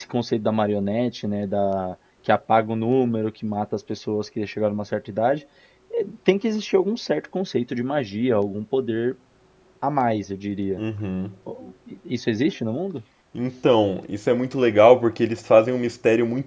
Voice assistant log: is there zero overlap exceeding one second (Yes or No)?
Yes